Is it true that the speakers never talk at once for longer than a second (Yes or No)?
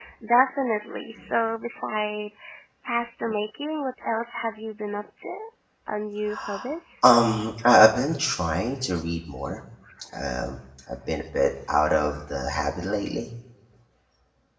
Yes